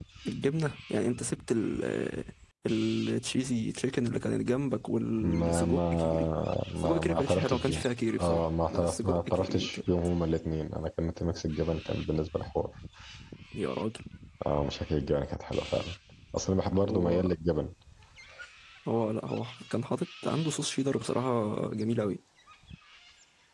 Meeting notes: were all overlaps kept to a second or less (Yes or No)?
No